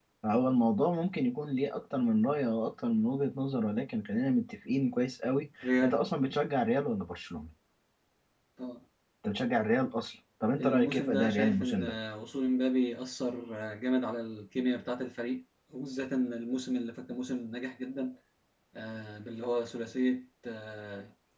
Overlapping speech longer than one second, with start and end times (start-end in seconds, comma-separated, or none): 10.6-11.9